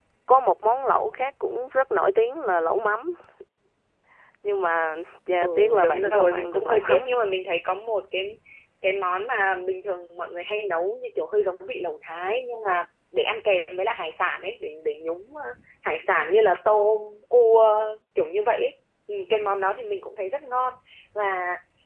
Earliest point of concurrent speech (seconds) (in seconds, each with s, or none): 5.4 s